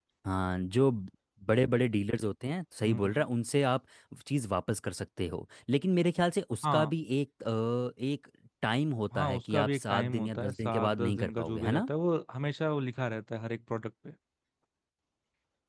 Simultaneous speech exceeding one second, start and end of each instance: 9.2-11.9

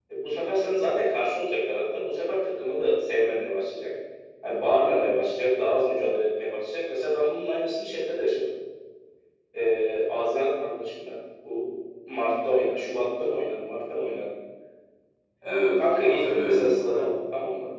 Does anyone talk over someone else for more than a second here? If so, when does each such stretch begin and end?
15.8-17.1

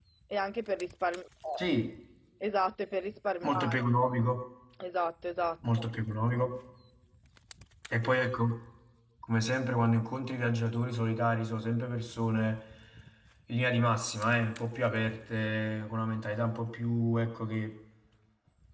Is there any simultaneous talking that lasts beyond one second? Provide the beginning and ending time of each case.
none

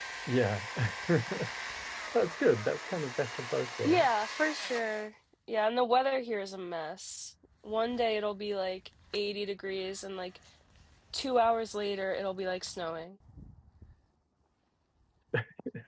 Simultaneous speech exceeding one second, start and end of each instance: none

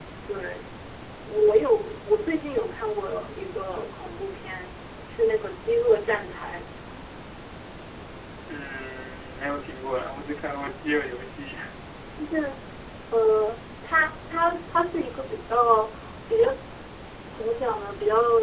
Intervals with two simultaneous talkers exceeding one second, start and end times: none

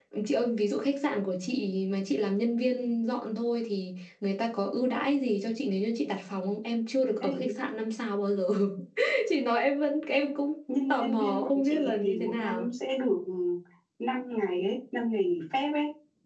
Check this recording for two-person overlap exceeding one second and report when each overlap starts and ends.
10.9-12.7

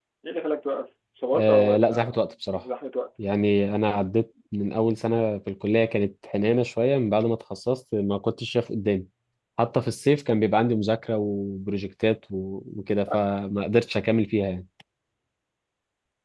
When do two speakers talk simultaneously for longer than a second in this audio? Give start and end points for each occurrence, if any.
1.3-2.6

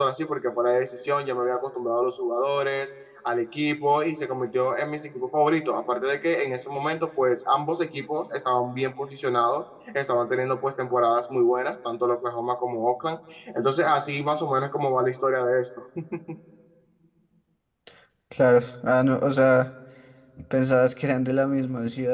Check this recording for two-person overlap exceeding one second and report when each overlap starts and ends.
none

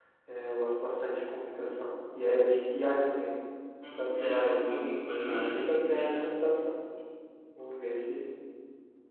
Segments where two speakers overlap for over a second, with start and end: 4.0-6.3

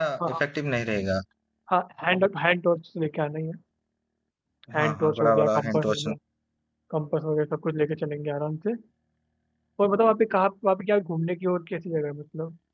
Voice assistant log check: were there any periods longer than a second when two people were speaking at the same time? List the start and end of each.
4.8-6.1

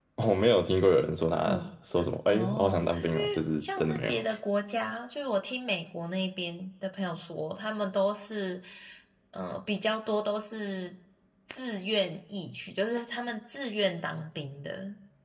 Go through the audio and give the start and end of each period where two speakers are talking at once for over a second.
2.3-4.1

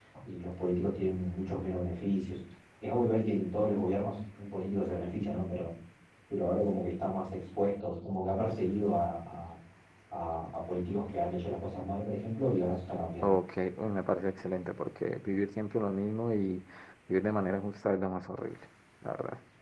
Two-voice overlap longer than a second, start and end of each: none

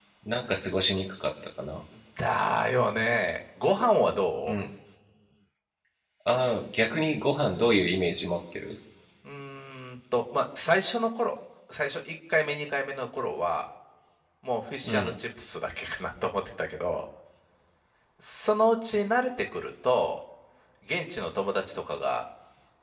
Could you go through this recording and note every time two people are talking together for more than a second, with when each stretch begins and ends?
none

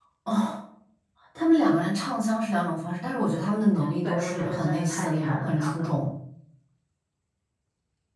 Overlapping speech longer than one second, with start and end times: 4.0-5.9

